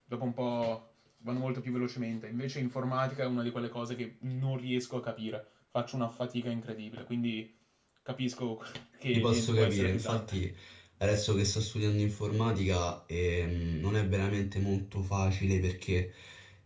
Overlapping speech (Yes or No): Yes